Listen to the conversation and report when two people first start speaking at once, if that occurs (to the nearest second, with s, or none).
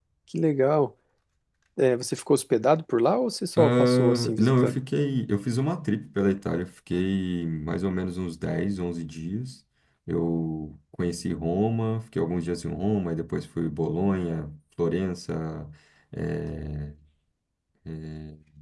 4 s